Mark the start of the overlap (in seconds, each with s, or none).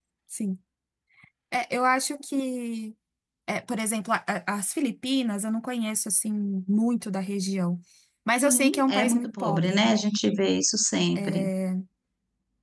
8.4 s